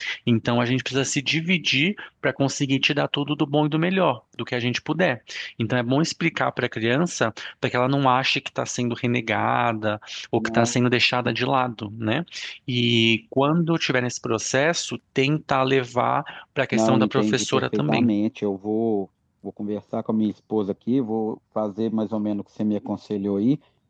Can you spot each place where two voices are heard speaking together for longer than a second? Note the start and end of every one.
16.7-18.1

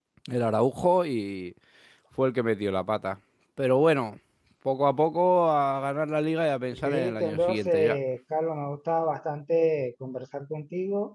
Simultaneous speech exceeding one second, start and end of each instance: 6.7-8.0

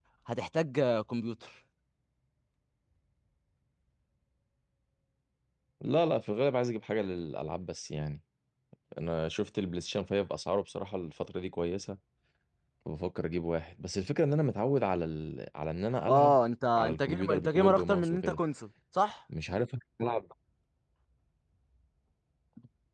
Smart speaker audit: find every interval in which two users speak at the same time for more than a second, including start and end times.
16.8-18.4

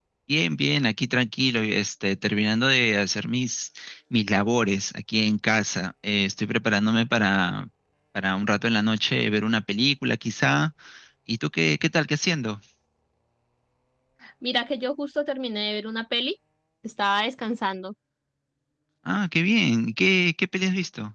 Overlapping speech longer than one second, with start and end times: none

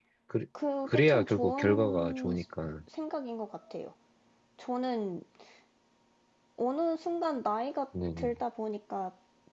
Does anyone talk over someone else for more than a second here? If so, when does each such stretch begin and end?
0.8-2.3

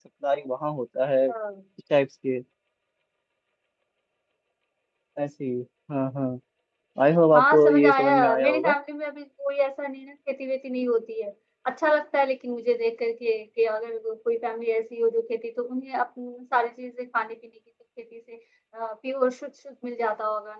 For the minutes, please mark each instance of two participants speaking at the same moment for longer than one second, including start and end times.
7.4-8.7

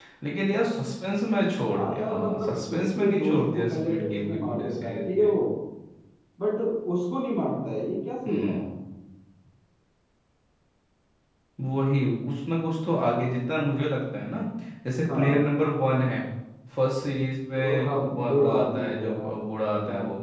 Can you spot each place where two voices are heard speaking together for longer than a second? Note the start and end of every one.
1.6-5.3, 17.8-19.2

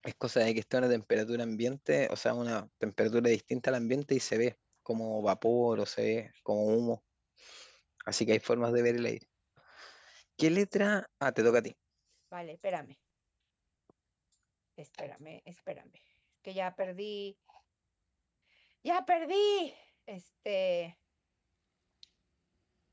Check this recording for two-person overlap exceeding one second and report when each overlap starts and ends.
none

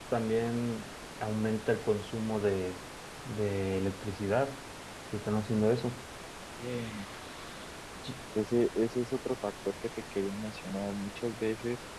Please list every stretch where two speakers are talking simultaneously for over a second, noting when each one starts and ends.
none

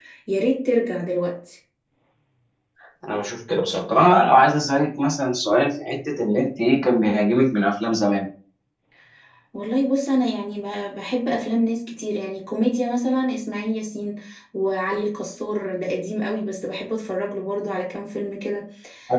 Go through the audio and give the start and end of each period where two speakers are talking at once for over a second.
none

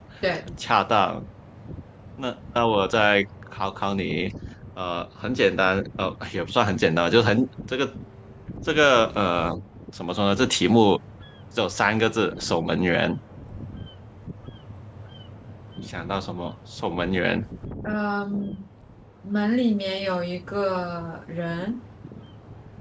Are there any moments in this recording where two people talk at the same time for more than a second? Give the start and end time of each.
none

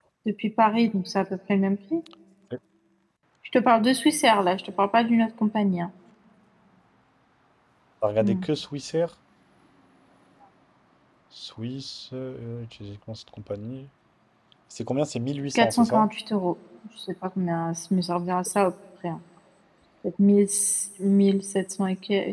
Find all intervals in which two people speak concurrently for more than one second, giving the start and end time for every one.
none

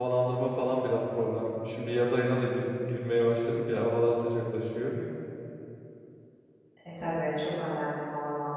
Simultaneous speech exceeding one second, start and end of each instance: none

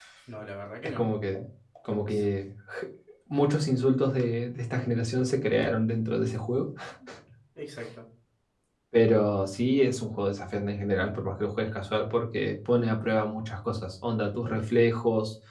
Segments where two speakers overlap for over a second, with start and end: none

